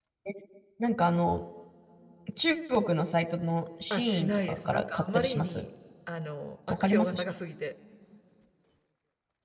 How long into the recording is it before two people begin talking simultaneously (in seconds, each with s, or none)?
3.9 s